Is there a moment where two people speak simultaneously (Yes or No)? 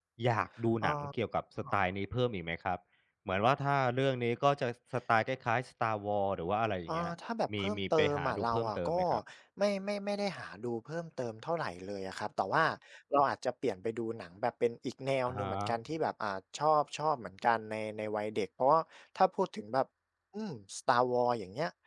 Yes